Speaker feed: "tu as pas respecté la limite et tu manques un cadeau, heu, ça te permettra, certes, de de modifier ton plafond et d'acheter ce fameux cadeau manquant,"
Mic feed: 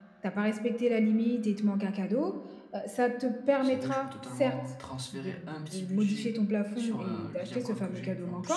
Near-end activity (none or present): present